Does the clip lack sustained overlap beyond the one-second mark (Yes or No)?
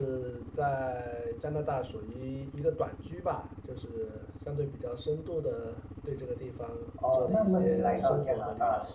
No